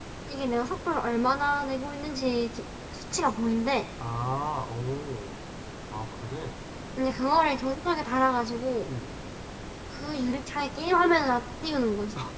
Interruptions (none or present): none